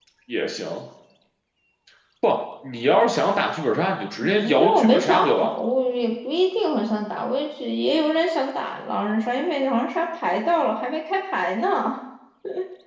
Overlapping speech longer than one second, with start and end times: 4.2-5.6

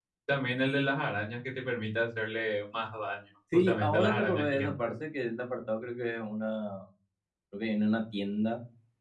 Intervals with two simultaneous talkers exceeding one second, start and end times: 3.5-4.7

